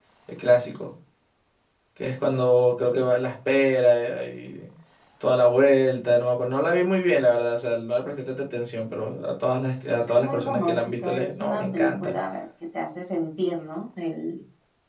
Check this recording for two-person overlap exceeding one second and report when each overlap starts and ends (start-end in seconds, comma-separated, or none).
10.1-12.2